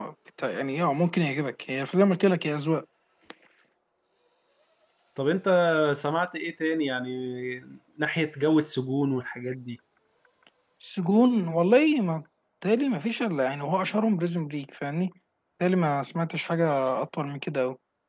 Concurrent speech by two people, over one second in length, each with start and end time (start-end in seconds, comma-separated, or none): none